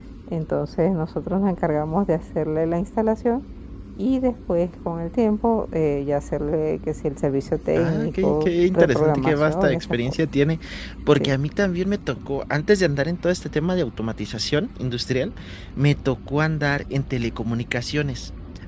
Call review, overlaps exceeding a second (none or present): present